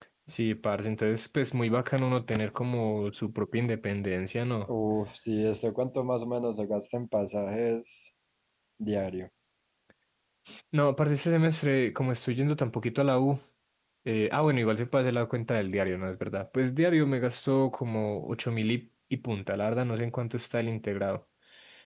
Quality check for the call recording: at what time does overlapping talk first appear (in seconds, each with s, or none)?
none